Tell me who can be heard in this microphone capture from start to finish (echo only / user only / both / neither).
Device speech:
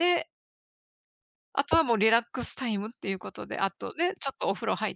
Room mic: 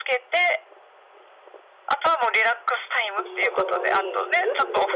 both